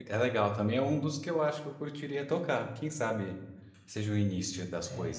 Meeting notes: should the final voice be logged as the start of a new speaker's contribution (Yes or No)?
Yes